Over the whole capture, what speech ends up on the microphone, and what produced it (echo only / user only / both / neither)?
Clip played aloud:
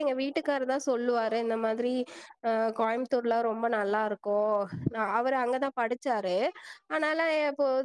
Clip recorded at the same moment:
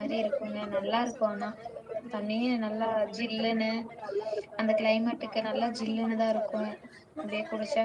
both